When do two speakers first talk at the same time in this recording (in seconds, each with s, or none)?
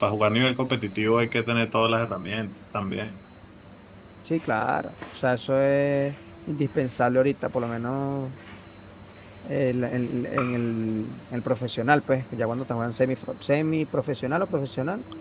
none